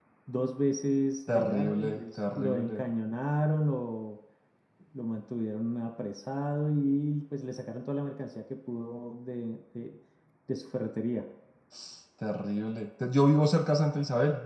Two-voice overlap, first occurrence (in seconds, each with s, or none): 1.3 s